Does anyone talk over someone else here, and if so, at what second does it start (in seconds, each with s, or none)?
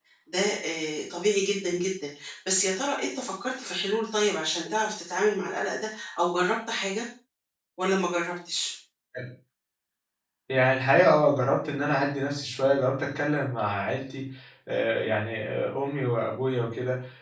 none